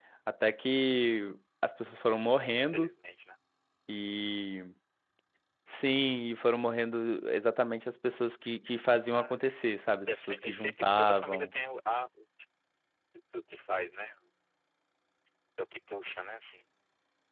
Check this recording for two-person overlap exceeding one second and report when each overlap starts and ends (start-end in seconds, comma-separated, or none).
10.1-11.5